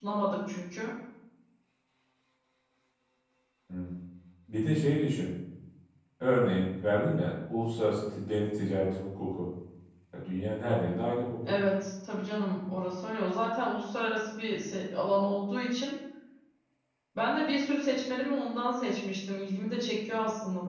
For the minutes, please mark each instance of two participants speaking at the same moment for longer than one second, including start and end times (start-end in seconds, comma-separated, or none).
none